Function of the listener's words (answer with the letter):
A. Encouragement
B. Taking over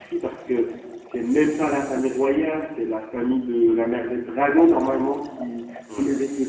A